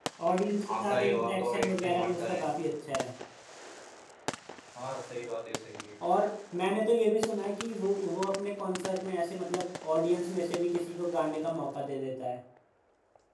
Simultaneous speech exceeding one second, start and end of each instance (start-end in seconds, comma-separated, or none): 0.7-2.4